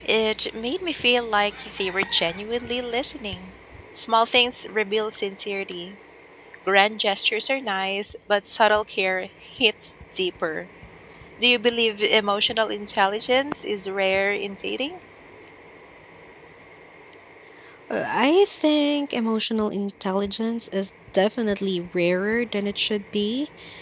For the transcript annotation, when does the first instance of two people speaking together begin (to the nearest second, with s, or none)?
none